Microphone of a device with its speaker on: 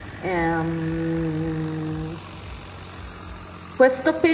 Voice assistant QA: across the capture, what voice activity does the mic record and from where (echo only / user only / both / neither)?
user only